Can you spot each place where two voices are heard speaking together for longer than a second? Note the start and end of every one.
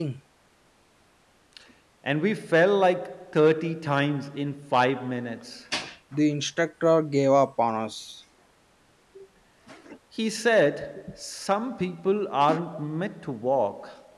none

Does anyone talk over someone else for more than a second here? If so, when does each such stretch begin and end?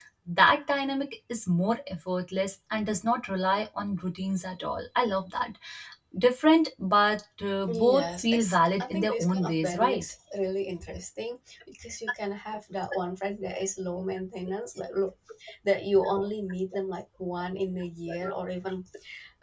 7.7-10.0

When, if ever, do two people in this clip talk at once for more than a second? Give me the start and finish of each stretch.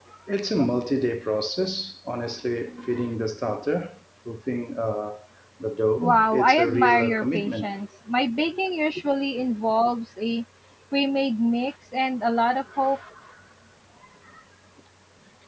6.0-7.7

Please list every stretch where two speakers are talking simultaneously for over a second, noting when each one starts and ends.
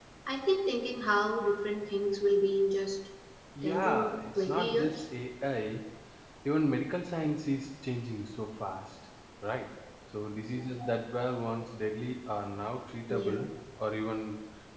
3.6-5.0

